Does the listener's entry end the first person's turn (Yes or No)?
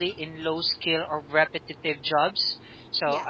No